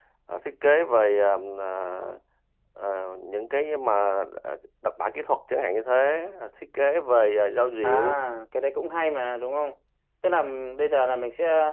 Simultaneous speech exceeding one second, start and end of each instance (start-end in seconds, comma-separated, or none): none